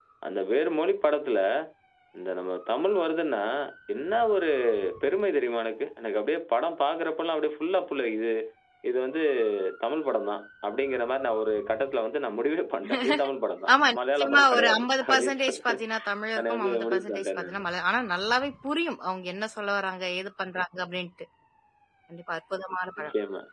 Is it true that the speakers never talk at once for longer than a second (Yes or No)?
No